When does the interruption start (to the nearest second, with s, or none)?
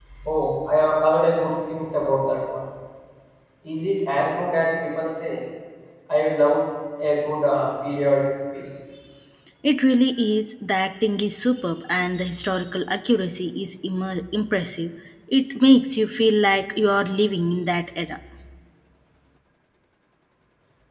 none